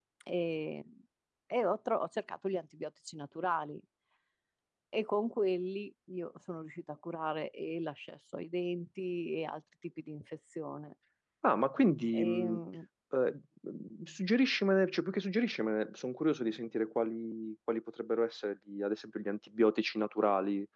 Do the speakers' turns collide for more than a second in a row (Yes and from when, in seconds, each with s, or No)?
No